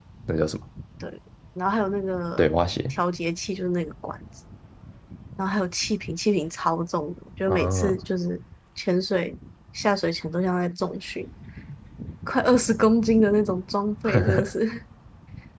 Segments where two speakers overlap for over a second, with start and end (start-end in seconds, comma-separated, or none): none